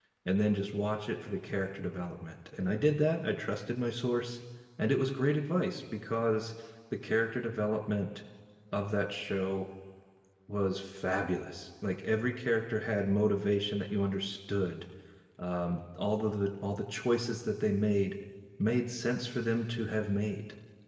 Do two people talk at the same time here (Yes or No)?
No